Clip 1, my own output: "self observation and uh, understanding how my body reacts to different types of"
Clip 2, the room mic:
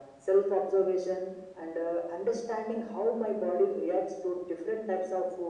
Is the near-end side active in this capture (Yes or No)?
No